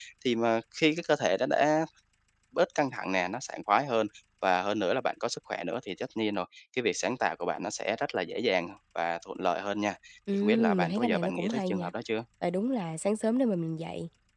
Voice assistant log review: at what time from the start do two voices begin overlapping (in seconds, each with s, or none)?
10.3 s